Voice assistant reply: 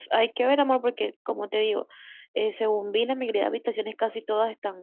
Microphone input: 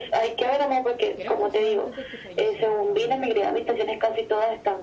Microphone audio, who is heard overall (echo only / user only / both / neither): both